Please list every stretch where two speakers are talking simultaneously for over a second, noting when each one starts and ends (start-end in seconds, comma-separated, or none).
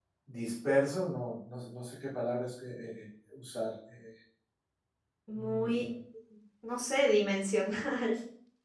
none